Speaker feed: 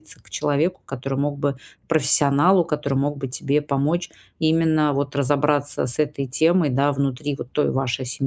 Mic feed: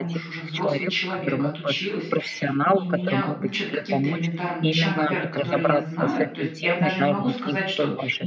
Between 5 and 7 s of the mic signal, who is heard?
both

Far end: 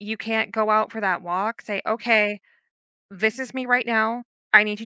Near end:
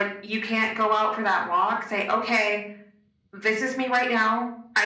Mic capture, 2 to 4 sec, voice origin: echo only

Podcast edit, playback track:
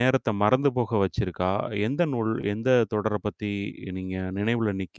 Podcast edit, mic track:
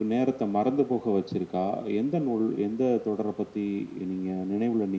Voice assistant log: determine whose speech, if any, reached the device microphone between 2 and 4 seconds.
echo only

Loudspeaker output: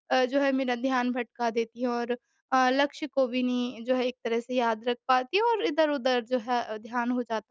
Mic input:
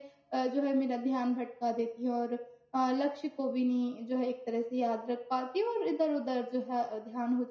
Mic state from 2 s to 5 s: echo only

